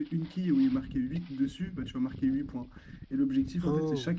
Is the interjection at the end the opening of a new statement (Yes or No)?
No